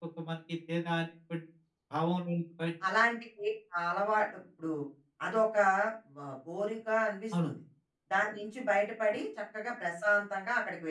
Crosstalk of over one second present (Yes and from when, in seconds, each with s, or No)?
No